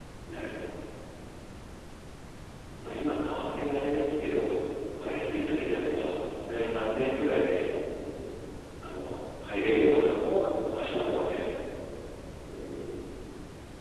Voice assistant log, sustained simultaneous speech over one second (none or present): none